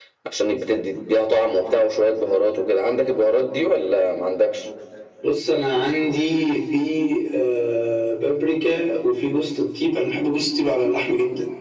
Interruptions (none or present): none